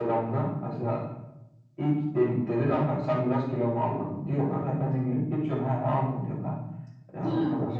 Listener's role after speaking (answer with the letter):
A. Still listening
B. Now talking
A